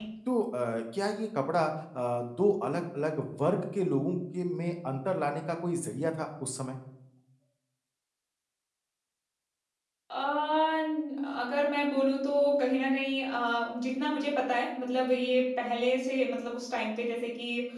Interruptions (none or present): none